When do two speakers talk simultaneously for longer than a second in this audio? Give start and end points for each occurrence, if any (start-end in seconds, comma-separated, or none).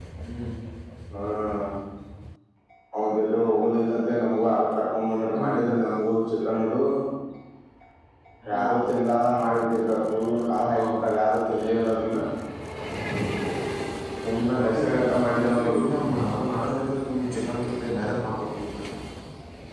14.3-15.8